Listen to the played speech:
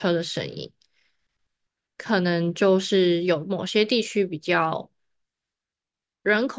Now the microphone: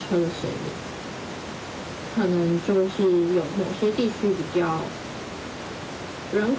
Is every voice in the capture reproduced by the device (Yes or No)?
Yes